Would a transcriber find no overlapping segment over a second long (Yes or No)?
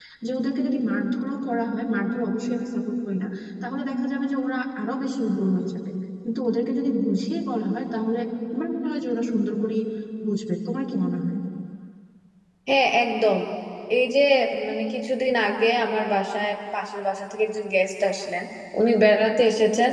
Yes